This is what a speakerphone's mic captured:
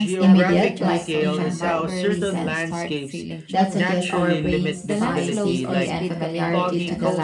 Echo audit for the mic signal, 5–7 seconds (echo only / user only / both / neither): both